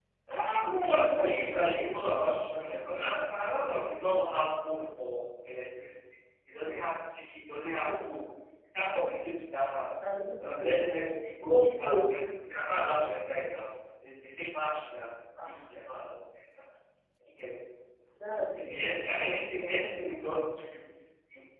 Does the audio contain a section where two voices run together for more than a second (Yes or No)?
Yes